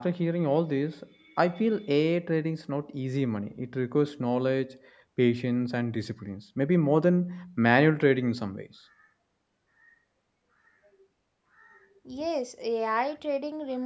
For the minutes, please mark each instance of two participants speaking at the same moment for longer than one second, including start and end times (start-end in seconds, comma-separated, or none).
none